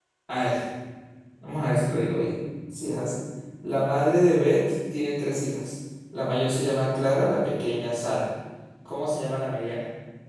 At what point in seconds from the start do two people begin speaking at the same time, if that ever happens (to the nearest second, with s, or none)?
none